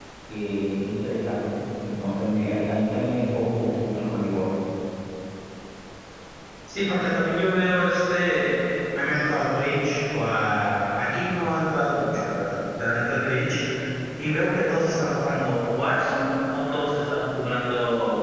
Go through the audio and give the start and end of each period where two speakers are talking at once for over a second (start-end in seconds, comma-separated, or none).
none